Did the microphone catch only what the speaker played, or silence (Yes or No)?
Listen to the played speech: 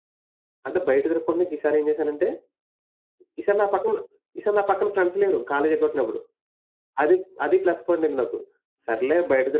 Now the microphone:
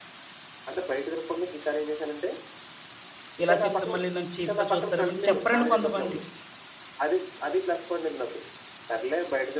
No